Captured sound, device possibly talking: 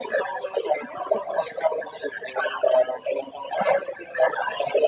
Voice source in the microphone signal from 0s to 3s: echo only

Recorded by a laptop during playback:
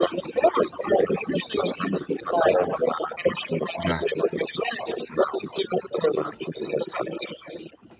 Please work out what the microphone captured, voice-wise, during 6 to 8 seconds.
echo only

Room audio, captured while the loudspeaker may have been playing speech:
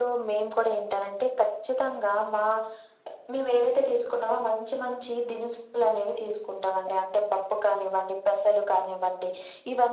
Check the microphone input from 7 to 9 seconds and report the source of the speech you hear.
echo only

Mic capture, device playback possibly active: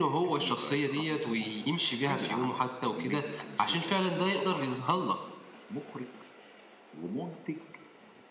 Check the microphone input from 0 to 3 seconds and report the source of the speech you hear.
echo only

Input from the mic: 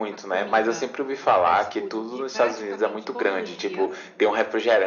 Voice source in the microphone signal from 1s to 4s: both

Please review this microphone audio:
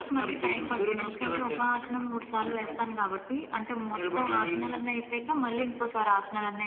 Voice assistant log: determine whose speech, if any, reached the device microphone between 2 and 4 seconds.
echo only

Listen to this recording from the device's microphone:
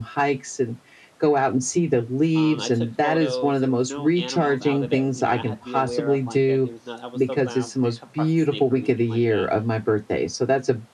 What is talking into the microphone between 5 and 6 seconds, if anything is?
both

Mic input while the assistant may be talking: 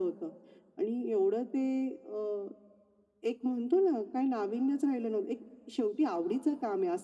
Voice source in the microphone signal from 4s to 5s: echo only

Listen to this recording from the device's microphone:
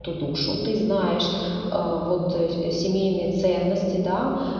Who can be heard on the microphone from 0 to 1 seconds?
user only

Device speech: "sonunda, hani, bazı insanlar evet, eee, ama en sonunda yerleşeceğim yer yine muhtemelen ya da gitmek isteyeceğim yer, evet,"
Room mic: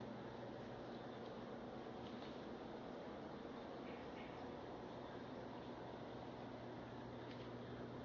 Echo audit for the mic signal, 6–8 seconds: neither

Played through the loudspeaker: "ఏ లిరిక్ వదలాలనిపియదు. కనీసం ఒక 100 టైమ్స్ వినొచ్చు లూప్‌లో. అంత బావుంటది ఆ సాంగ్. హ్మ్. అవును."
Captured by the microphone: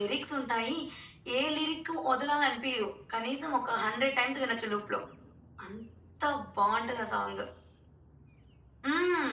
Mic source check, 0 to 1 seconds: echo only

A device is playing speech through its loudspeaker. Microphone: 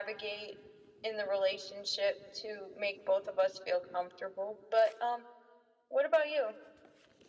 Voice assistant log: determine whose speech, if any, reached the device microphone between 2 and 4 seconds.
echo only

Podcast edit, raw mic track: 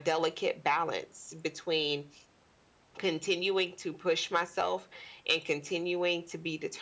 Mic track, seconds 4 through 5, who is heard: echo only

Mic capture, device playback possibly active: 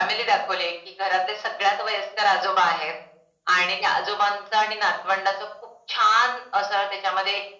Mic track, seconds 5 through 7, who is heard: echo only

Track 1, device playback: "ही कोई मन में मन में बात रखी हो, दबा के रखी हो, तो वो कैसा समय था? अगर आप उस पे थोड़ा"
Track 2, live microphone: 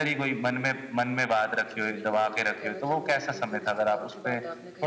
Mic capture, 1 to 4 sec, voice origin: both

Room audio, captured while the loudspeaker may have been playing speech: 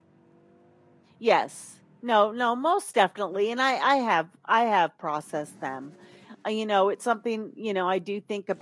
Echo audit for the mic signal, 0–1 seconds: neither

